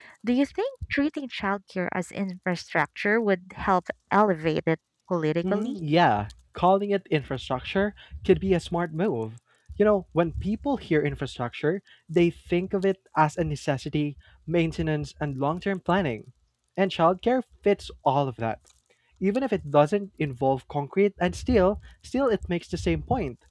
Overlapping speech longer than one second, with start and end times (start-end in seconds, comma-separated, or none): none